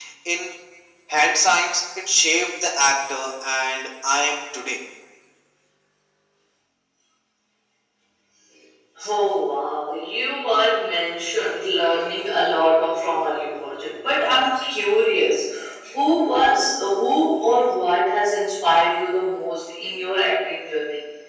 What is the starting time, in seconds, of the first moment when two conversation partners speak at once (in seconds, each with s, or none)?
none